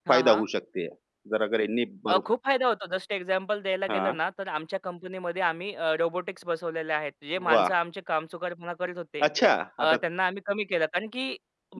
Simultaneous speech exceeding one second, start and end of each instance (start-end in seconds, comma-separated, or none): none